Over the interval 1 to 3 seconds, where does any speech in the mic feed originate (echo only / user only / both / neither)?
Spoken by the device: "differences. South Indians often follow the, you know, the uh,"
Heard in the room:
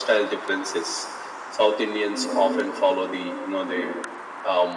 echo only